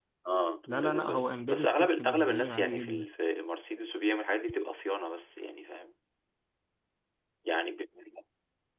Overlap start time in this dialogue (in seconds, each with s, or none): 0.7 s